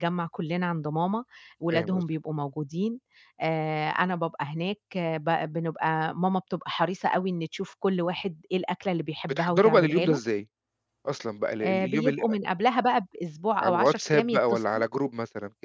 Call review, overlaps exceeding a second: present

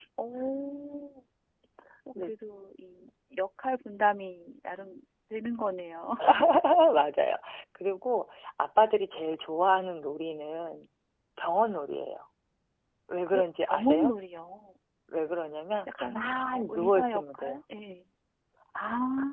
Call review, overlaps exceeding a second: present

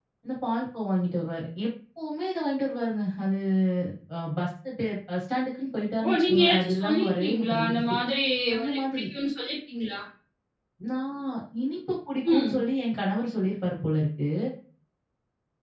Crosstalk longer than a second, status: present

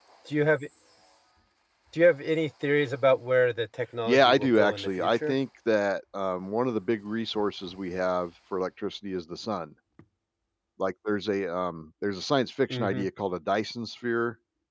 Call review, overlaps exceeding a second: present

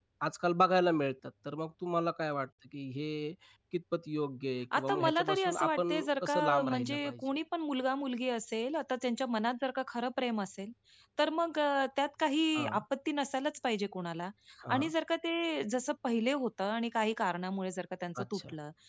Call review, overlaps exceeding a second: present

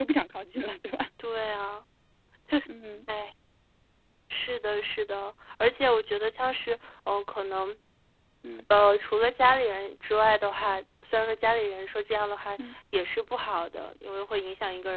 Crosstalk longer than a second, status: none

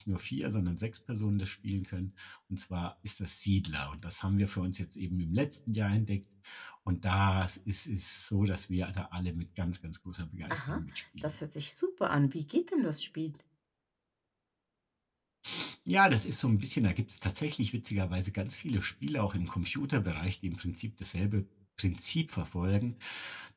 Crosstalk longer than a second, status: none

